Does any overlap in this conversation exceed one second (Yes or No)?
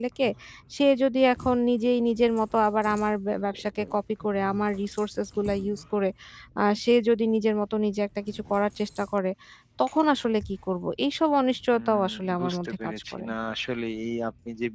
Yes